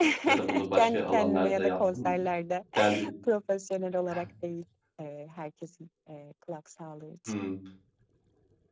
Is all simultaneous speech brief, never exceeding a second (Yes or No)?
No